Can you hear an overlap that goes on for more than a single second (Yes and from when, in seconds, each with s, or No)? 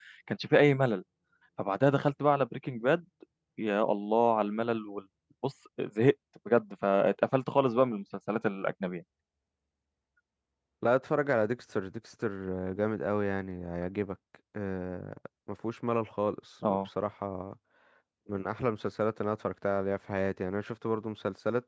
No